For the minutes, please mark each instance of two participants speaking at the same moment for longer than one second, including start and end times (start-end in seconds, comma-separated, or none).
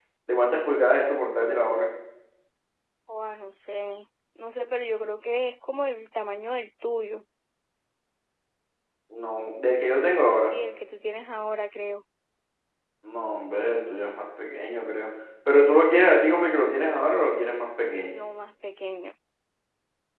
none